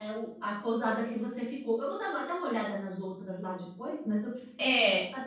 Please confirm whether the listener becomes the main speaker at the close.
Yes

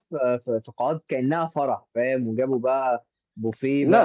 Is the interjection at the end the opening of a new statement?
No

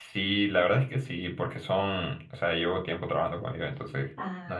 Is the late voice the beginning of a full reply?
No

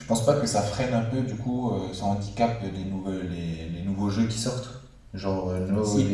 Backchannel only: Yes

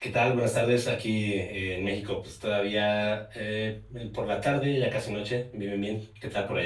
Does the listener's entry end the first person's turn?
Yes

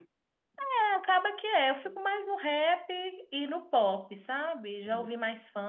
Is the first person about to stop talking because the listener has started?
No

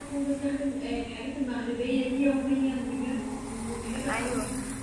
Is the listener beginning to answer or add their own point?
Yes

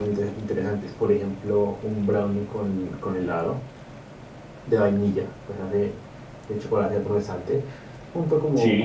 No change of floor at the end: Yes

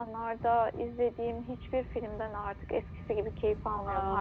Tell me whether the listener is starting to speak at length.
Yes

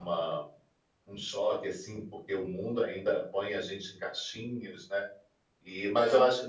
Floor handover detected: No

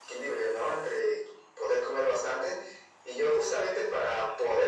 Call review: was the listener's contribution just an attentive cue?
Yes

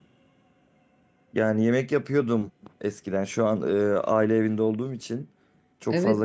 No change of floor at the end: No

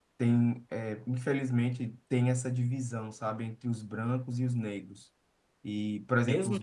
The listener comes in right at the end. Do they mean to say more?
Yes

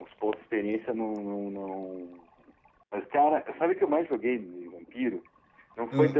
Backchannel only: Yes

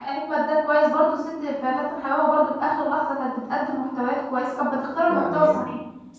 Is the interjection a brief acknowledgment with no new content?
No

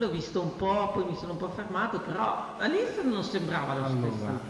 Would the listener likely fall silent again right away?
No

